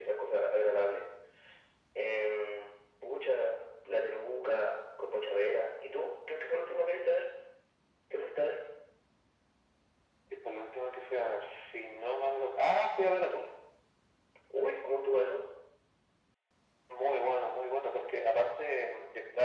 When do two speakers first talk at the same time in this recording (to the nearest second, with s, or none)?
none